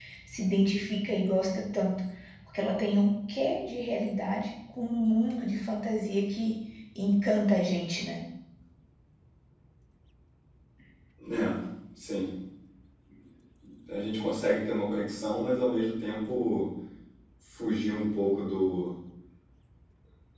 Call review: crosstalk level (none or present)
none